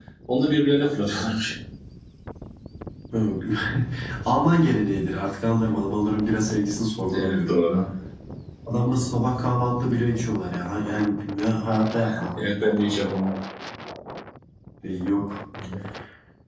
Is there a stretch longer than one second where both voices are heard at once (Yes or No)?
No